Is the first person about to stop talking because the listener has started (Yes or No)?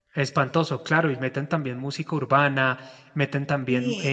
No